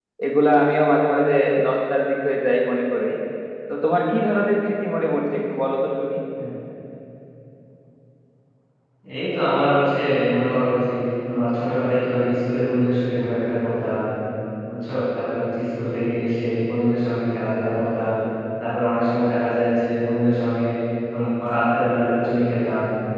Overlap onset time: none

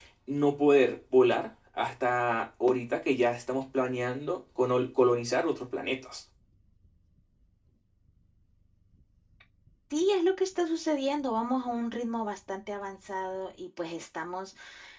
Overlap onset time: none

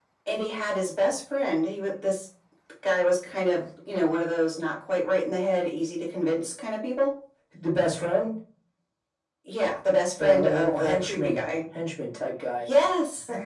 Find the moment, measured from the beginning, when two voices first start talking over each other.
10.2 s

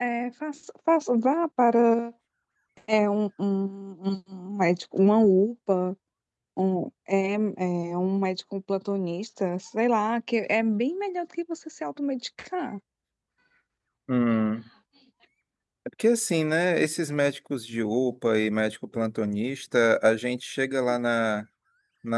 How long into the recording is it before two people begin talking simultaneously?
none

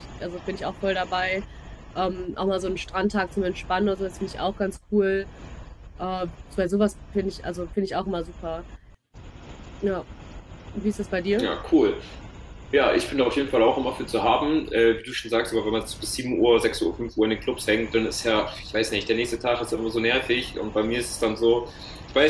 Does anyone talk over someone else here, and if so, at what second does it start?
none

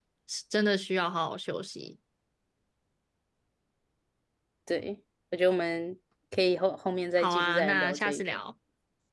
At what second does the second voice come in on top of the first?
7.2 s

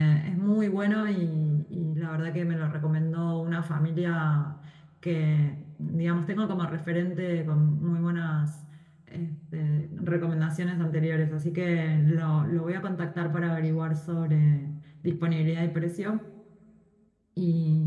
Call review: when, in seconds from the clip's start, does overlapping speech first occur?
none

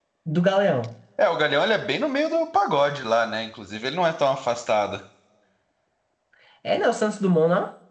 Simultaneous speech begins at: none

